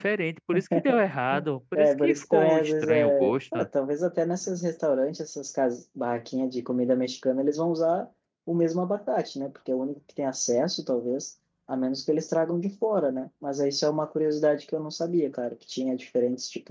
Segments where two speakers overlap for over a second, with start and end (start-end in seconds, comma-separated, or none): 1.8-3.7